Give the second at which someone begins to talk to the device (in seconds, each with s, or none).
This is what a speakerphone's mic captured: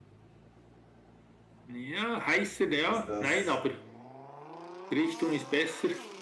2.8 s